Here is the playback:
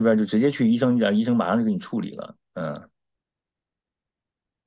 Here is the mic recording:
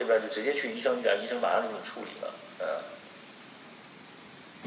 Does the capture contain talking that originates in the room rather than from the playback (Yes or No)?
No